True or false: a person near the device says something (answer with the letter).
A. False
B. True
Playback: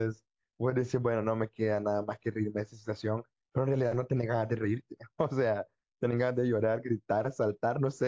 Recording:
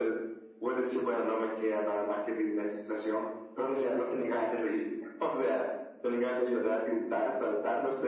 A